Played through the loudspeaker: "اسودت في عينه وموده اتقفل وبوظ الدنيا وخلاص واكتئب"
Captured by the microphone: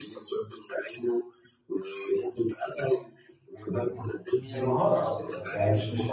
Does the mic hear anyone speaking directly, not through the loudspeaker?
Yes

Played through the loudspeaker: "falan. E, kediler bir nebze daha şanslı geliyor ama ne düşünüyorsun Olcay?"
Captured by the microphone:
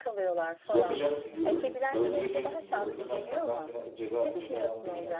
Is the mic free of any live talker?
No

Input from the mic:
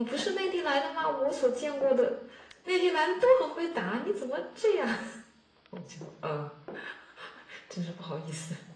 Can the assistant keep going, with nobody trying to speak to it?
Yes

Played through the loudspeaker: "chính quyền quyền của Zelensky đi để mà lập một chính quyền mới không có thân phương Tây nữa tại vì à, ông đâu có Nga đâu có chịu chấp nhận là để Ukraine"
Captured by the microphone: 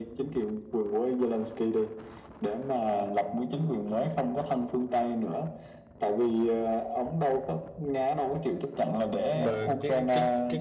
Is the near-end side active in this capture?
Yes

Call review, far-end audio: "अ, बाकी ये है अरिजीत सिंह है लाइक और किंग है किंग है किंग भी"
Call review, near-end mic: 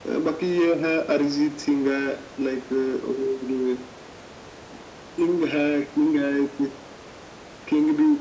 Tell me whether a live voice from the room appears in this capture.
No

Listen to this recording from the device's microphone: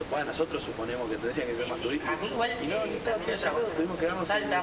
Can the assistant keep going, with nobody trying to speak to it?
No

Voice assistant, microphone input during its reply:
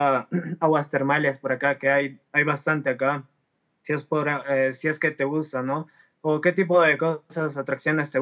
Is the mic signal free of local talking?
No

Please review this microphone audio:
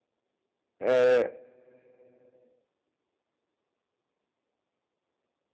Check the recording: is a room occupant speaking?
Yes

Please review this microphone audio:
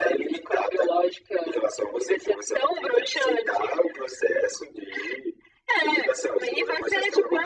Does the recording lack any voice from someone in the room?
Yes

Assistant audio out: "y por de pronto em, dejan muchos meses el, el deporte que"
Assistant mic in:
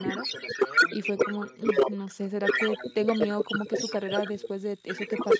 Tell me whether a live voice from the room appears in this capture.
Yes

